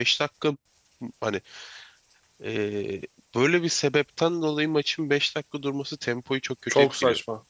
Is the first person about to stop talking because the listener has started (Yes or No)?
Yes